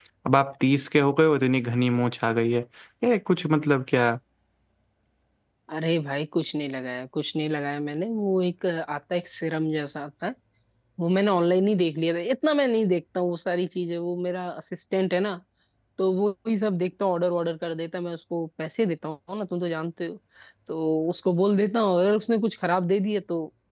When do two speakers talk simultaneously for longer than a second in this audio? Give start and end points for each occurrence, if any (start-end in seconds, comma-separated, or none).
none